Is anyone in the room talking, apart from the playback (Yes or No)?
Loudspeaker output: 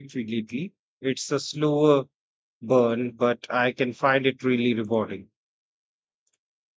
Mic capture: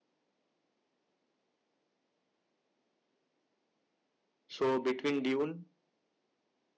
Yes